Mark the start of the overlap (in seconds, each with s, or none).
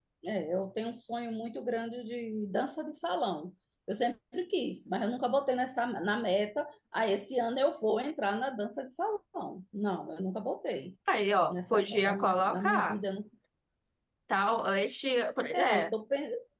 11.5 s